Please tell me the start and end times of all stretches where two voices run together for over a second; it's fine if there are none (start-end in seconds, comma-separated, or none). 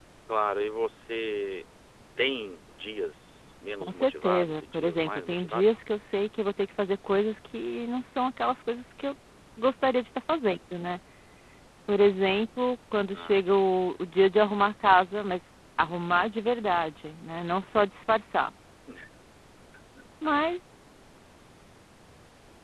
3.8-5.7